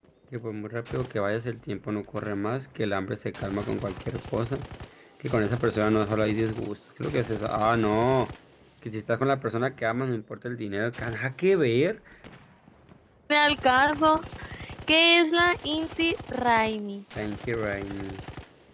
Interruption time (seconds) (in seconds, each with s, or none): none